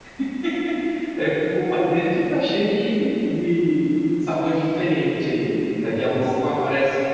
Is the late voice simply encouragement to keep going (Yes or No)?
Yes